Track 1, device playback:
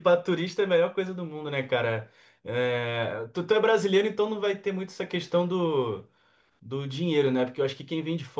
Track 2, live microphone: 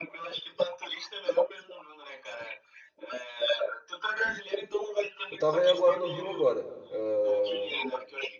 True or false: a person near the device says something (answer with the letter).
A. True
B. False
A